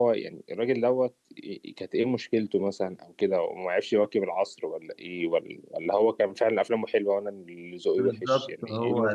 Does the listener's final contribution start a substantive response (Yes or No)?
Yes